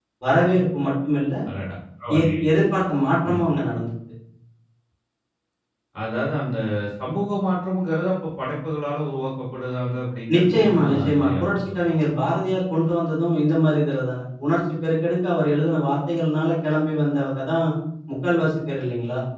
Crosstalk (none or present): present